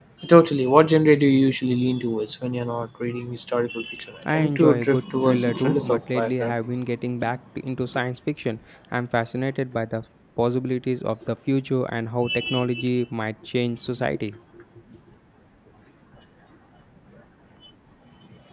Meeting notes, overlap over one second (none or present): present